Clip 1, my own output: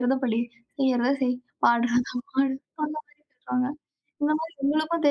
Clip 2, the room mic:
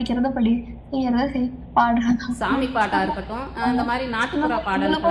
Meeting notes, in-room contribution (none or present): present